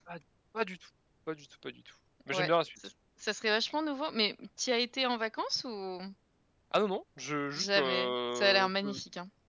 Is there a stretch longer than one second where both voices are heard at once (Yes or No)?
Yes